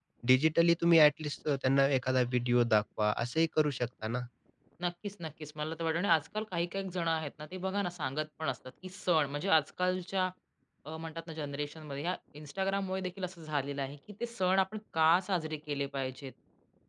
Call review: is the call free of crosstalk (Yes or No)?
Yes